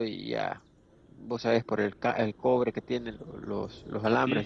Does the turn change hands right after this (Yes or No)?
Yes